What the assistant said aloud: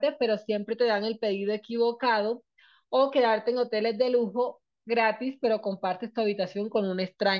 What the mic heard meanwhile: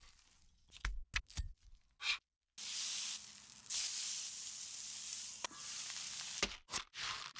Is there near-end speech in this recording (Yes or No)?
No